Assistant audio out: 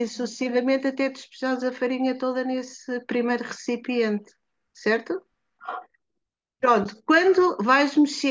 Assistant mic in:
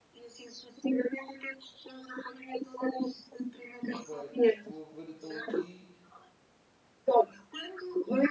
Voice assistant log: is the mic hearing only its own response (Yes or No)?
No